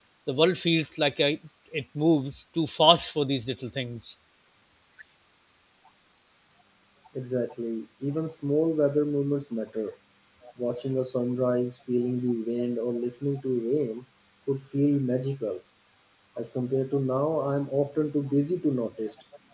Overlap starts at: none

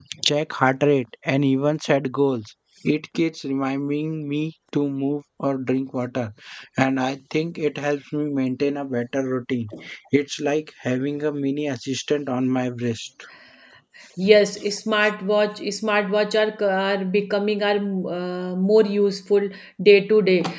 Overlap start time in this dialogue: none

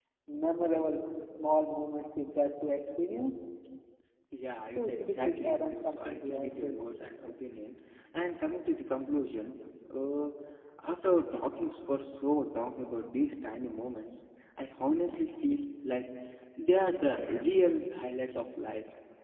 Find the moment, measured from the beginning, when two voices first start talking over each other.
4.8 s

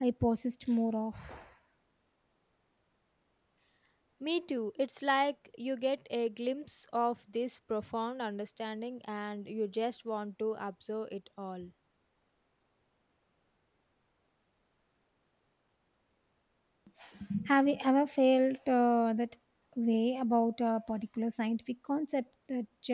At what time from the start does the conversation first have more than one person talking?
none

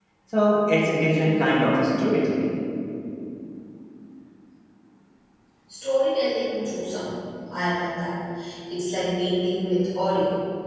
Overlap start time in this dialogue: none

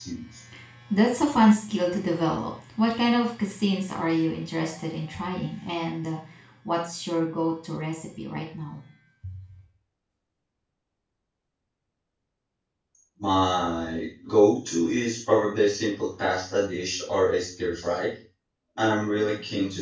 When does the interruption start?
none

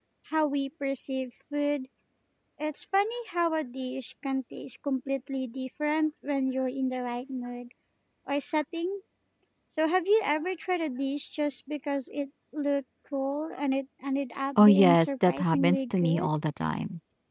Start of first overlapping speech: 14.6 s

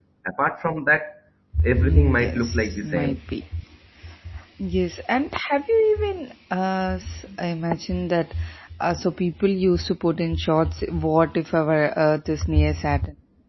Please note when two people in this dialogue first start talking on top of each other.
1.5 s

